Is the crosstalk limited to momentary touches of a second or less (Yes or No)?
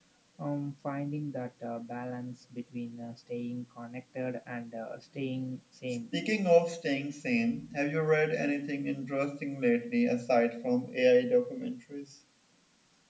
Yes